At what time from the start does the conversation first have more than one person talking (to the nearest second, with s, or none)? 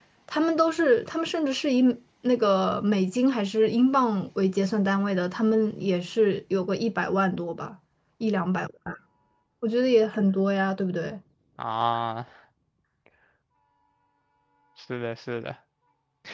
none